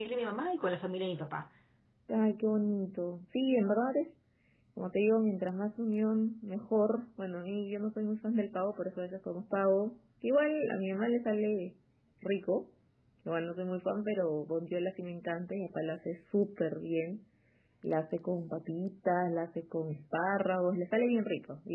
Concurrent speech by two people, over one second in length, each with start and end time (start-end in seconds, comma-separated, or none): none